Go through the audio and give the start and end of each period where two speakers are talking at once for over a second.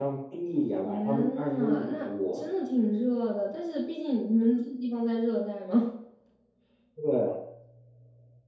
0.8-2.5

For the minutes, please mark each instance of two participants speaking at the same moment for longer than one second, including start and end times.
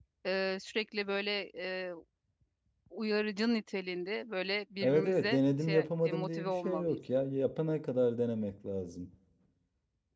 4.8-7.0

